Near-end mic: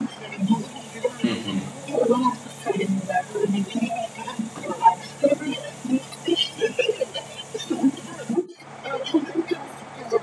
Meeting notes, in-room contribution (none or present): present